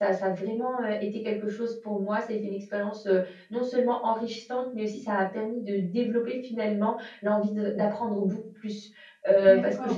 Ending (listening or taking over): taking over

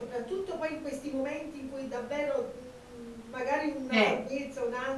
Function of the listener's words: listening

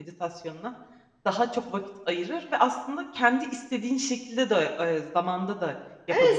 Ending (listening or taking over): taking over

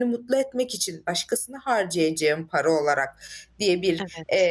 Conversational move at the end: listening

